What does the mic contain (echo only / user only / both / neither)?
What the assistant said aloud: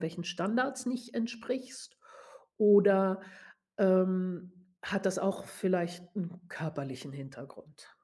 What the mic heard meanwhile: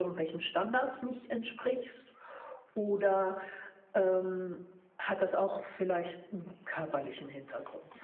echo only